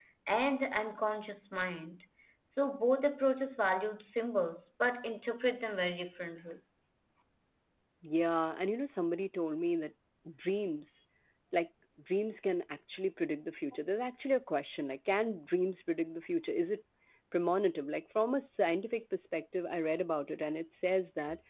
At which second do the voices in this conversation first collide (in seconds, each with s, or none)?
none